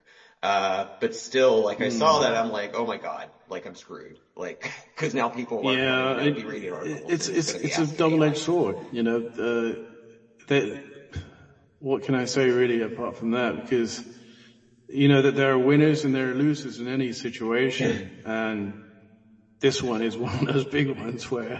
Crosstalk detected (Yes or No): Yes